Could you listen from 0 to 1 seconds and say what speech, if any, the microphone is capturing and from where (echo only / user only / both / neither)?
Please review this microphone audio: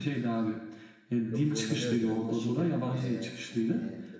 echo only